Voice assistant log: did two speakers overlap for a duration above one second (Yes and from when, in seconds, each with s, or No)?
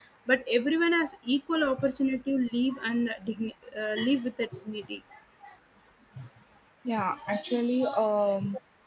No